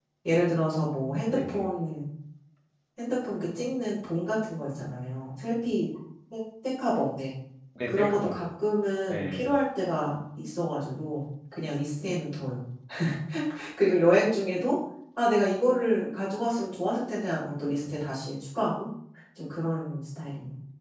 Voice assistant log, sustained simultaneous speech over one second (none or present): none